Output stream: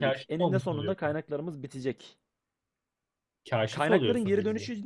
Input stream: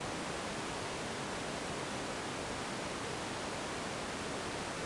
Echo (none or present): none